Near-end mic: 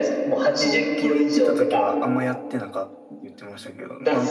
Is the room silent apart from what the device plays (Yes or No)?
No